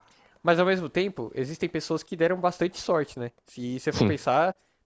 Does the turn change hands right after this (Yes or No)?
No